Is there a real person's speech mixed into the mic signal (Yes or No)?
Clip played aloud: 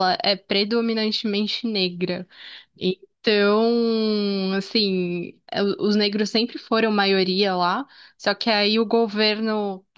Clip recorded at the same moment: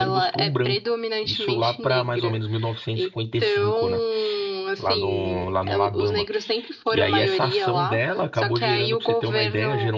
Yes